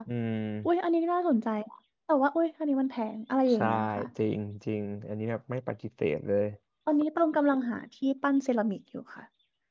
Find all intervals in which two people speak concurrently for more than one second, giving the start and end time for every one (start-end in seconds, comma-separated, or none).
none